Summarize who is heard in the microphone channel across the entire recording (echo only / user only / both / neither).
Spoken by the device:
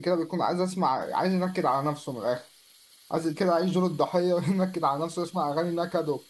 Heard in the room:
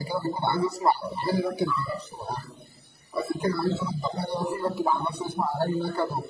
echo only